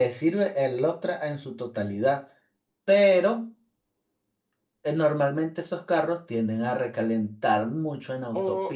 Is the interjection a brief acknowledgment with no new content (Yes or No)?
No